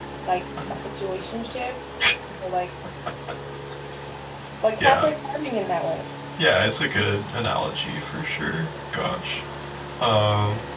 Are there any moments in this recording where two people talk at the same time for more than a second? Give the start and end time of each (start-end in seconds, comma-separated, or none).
none